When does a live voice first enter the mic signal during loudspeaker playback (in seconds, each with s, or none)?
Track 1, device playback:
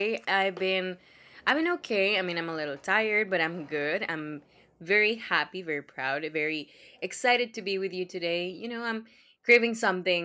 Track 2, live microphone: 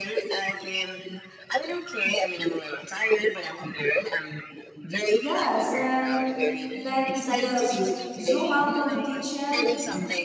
5.2 s